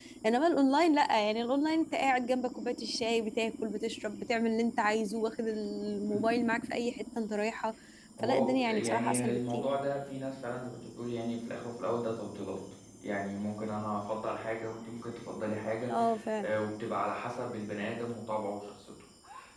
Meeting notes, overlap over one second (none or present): present